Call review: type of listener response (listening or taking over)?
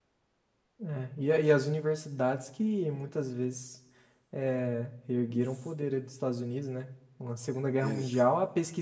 listening